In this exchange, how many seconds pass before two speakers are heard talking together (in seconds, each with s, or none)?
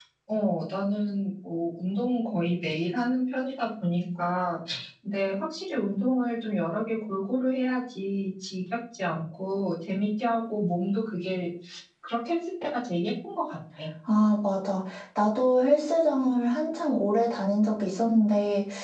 none